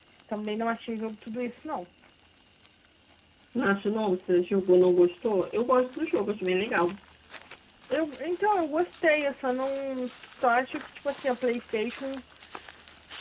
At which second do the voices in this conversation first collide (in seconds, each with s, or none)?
none